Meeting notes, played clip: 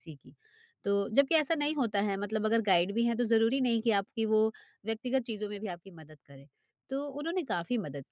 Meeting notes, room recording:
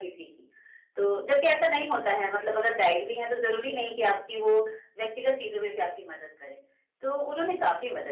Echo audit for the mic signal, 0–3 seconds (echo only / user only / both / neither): echo only